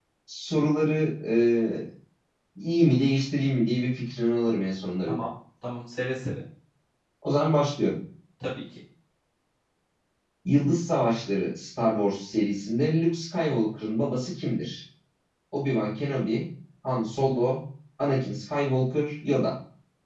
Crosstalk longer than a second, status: none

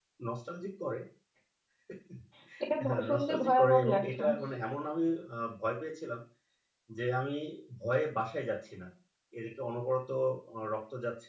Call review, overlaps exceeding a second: present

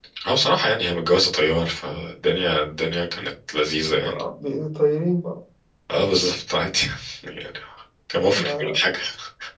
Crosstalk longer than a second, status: none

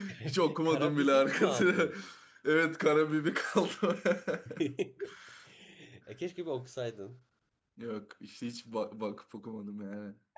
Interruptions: present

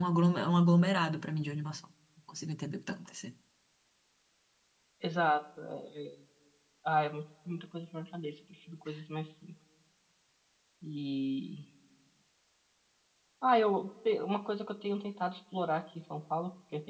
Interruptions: none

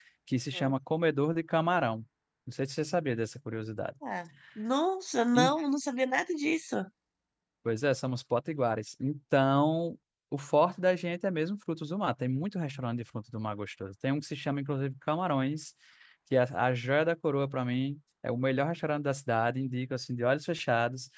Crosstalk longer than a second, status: none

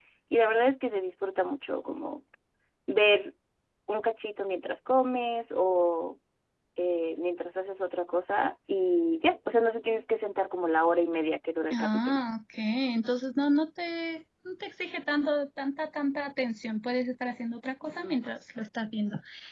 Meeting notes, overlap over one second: none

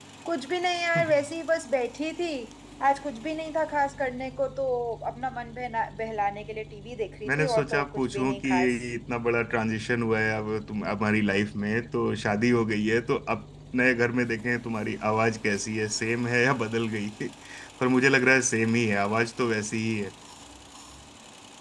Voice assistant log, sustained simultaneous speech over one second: present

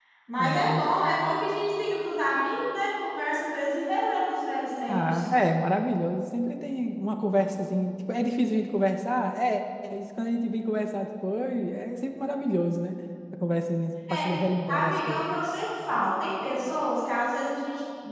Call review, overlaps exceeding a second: none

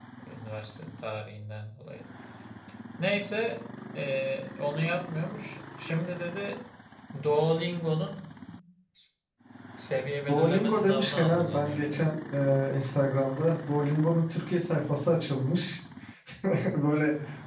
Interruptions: present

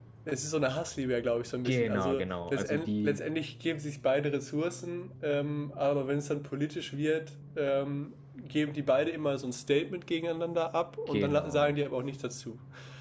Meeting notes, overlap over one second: present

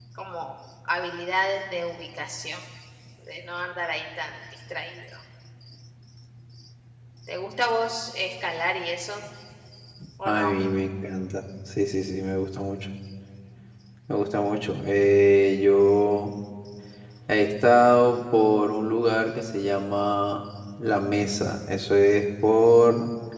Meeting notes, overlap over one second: none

